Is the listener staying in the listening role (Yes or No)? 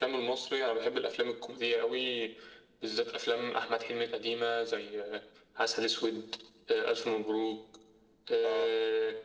Yes